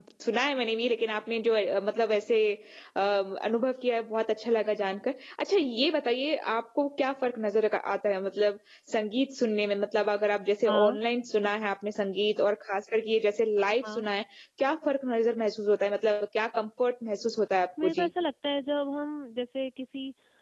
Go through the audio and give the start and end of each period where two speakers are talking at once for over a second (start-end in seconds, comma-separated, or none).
none